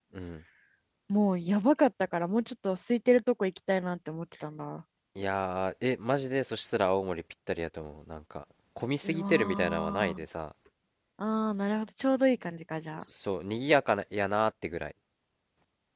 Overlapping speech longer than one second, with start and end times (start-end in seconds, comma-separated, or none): 9.0-10.2